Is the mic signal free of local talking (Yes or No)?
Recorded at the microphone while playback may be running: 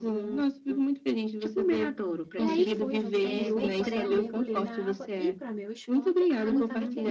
No